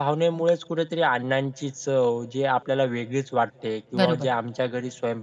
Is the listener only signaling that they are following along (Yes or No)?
Yes